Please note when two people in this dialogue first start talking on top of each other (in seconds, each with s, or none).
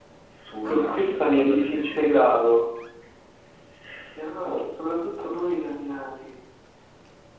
0.7 s